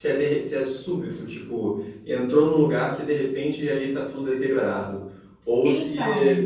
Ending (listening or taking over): listening